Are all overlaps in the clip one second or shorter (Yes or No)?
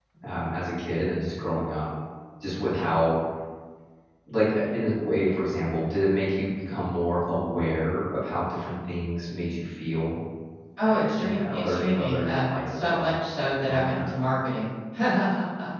No